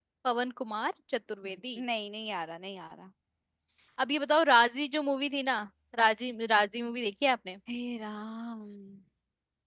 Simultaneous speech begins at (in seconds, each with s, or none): none